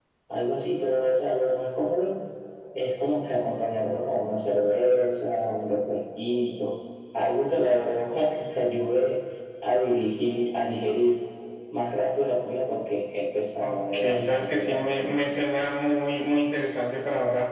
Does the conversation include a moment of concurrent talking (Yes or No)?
Yes